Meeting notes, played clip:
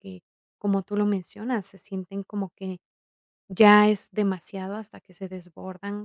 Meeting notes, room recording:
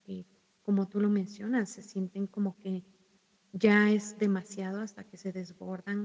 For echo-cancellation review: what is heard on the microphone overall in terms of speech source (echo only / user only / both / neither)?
echo only